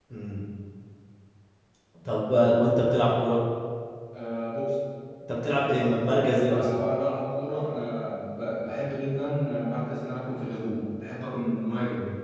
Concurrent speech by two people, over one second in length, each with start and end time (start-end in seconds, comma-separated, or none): none